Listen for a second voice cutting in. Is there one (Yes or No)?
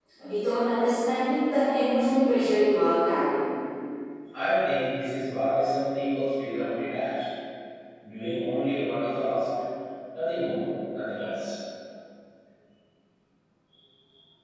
No